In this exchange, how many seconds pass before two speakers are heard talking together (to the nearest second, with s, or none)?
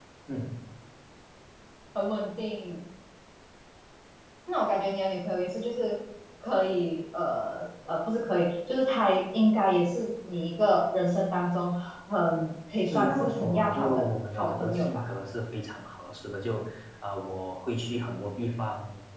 13 s